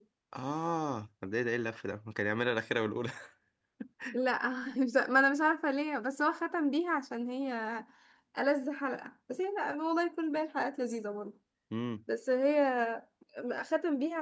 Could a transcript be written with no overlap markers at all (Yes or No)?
Yes